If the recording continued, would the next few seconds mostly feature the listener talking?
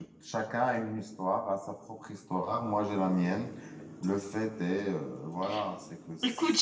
Yes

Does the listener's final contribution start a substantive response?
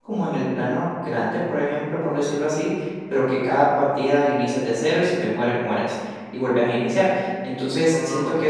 No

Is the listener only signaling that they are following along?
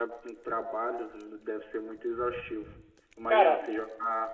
Yes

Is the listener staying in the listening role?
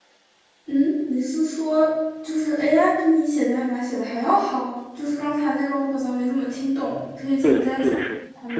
No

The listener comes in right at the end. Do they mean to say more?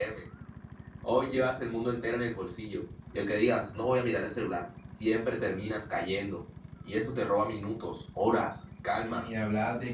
Yes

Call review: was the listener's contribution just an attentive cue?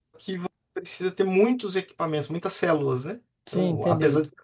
No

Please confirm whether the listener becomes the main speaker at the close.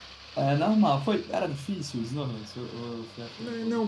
Yes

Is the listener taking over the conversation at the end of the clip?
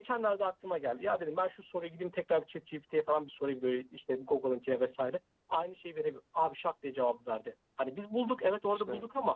No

